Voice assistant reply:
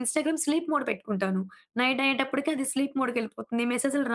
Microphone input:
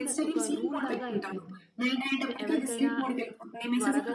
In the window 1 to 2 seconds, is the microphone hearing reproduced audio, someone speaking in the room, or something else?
both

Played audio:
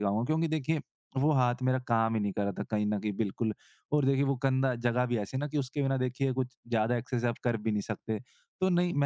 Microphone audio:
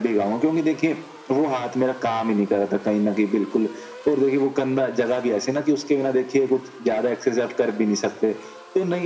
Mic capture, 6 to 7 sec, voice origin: echo only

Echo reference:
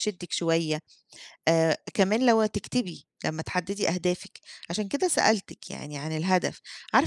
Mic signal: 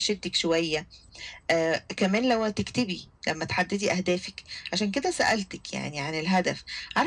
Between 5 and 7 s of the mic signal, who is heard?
echo only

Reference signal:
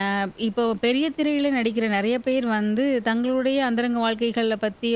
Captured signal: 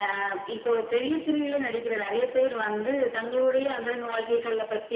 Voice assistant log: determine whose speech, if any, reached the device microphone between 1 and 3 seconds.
echo only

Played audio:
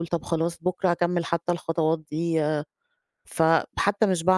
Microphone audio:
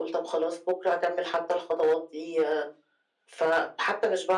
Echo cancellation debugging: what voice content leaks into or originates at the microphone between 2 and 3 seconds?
echo only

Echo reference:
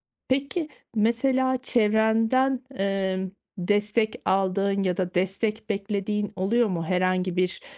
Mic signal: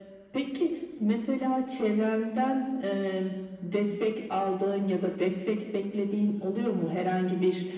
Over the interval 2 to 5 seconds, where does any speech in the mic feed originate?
echo only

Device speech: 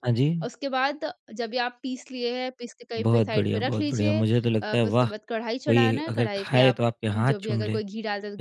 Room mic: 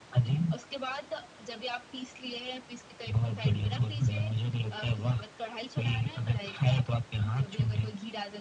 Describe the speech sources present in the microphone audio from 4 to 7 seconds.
echo only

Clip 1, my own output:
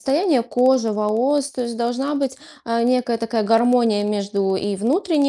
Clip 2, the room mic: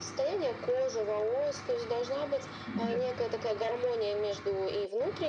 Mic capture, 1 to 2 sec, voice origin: echo only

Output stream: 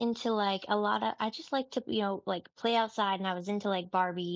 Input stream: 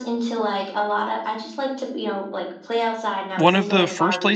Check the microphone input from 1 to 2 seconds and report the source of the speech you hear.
echo only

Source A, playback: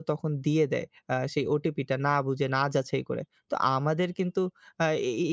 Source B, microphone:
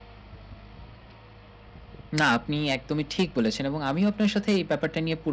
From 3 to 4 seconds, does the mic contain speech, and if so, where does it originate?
user only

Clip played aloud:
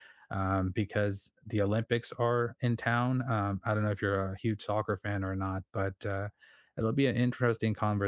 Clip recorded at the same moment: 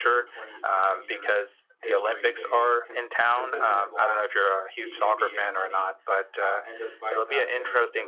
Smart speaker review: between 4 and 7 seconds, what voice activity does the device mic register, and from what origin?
both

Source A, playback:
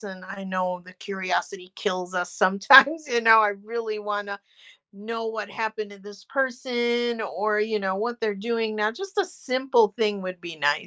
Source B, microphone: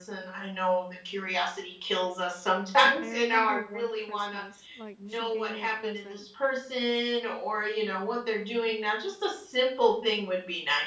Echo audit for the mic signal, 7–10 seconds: echo only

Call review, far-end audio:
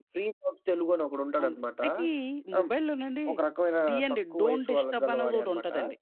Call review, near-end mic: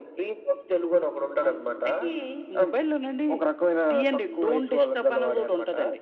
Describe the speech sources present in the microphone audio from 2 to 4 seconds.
echo only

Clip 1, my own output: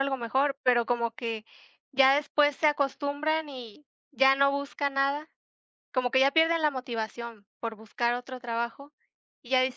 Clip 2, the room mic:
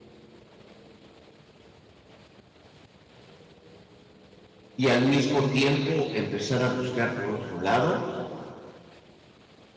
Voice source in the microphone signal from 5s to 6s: user only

